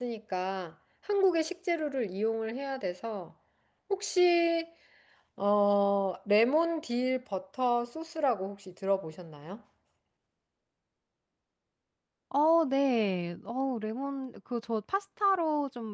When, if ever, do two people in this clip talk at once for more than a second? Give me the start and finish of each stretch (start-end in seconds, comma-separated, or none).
none